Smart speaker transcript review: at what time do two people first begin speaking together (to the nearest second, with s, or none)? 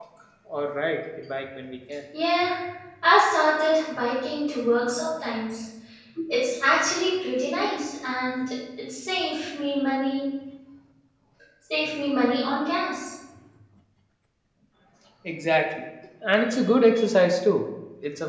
none